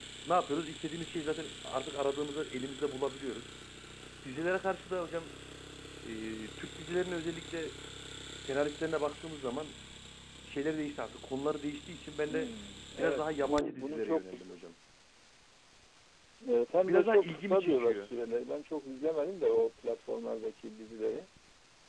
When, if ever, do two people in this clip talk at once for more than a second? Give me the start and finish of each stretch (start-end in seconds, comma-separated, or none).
13.0-14.6, 16.8-18.0